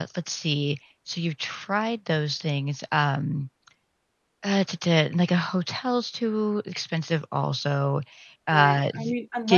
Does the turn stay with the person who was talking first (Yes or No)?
No